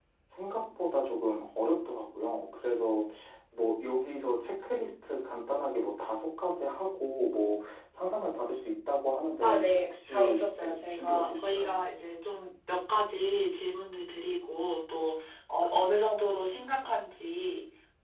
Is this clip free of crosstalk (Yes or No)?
No